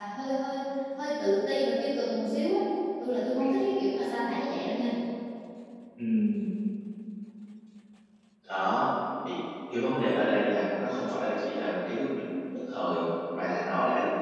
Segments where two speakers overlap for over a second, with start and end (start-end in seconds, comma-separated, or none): none